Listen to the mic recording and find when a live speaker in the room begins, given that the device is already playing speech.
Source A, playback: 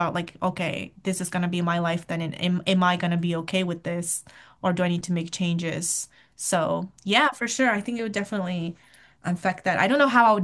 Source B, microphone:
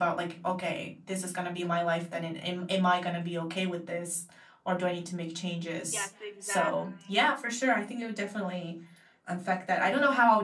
6 s

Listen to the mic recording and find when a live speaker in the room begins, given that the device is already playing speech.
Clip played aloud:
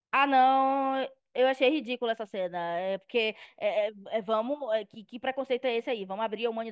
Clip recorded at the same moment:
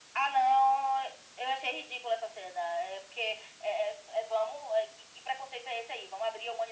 none

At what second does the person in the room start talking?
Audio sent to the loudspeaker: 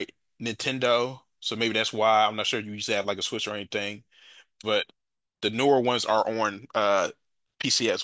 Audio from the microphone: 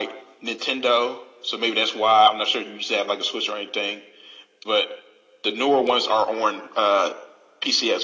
none

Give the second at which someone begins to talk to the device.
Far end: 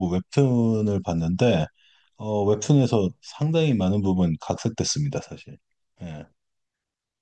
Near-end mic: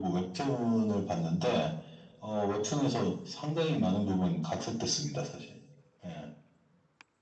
none

